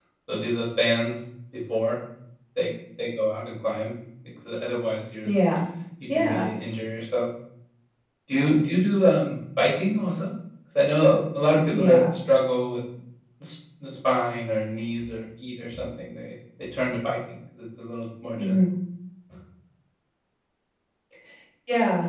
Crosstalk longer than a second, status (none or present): none